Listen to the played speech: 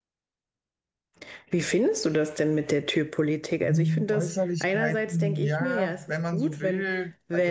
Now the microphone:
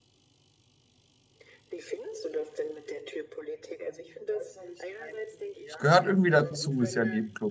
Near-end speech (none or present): present